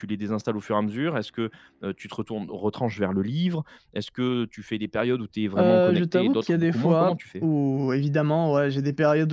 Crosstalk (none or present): present